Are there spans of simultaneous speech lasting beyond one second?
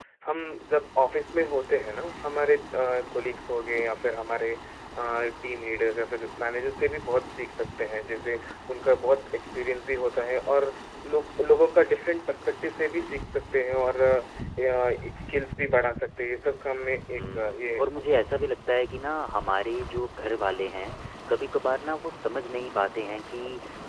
Yes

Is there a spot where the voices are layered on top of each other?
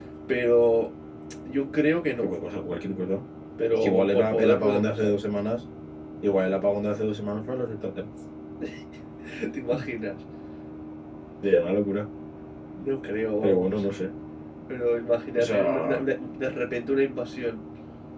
Yes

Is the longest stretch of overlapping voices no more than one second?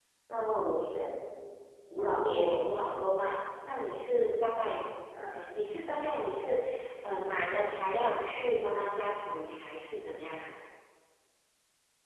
Yes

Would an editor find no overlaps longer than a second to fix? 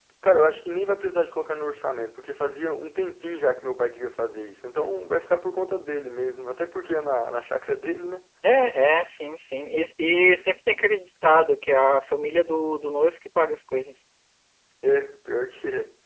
Yes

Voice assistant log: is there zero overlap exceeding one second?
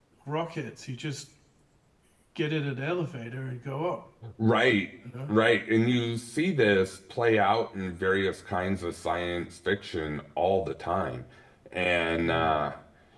Yes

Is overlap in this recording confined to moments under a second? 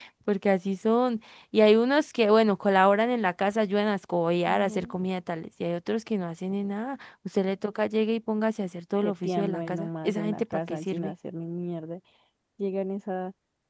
No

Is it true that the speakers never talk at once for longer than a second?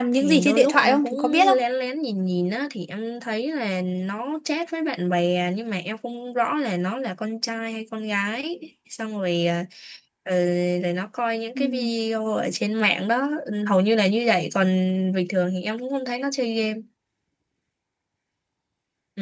No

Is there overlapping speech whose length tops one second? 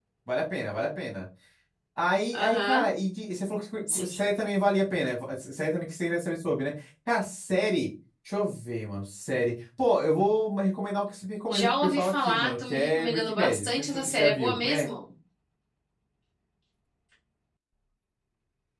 Yes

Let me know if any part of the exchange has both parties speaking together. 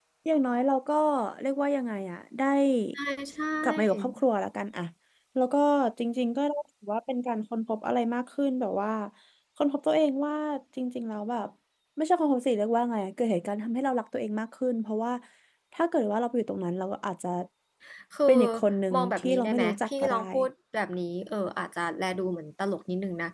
Yes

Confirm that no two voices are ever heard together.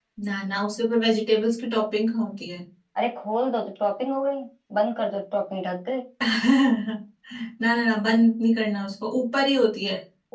Yes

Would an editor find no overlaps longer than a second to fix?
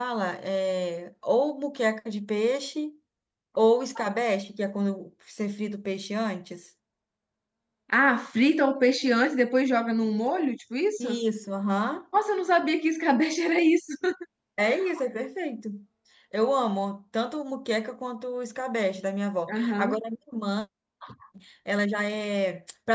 Yes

